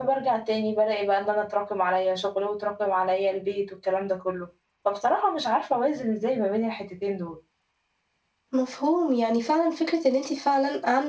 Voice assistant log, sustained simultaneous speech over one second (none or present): none